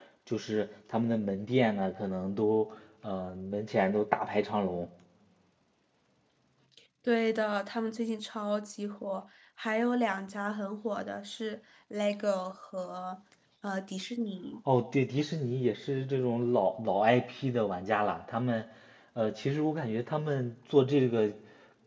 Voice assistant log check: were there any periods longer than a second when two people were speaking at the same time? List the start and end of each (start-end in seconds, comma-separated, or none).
none